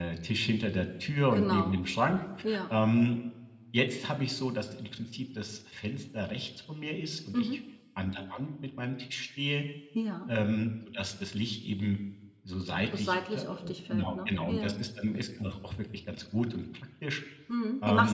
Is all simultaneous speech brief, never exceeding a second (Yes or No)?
No